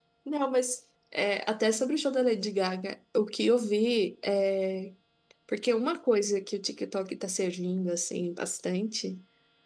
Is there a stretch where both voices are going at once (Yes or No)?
No